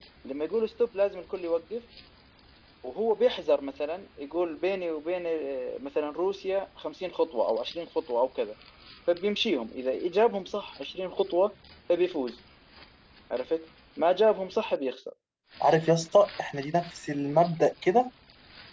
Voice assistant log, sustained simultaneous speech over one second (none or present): none